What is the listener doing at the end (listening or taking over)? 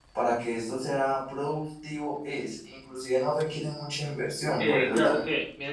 taking over